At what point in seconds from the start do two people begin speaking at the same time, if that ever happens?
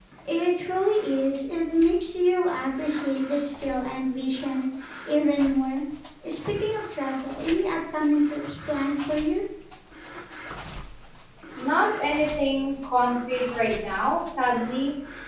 none

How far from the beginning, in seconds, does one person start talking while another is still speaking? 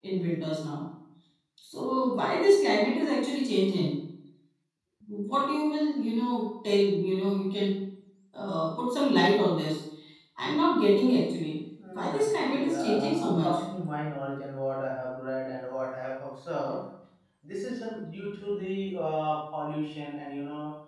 12 s

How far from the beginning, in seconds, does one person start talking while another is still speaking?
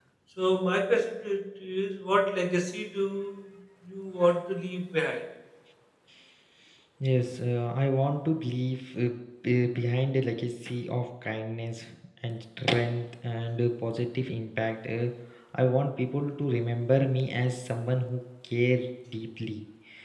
none

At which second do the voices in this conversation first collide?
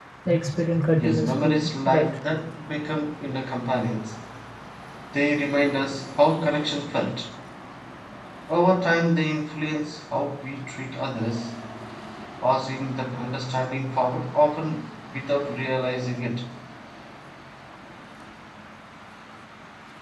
1 s

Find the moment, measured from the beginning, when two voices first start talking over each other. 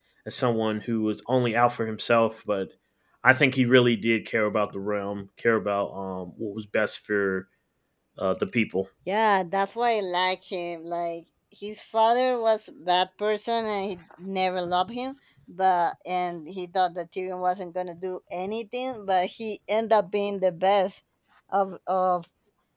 none

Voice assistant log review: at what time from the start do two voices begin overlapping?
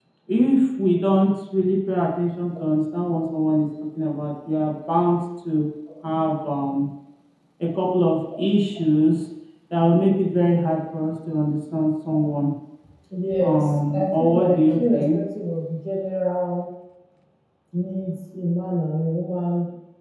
13 s

